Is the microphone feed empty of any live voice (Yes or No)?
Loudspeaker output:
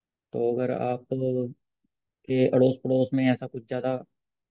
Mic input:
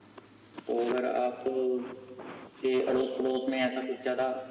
Yes